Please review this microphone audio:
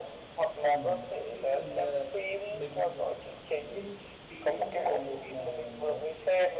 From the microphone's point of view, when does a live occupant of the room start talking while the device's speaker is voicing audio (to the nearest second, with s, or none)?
1 s